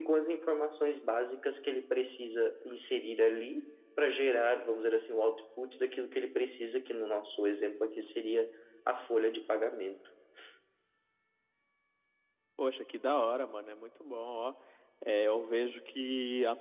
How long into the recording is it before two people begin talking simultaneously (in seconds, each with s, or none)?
none